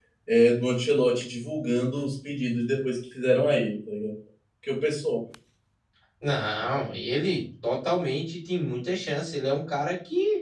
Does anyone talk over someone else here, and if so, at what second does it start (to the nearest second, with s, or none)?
none